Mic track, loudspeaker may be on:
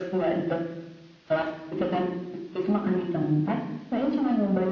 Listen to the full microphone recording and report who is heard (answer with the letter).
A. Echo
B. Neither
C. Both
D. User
A